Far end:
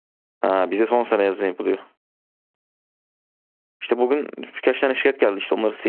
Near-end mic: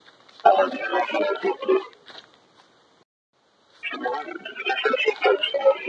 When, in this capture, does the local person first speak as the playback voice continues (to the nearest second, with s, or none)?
none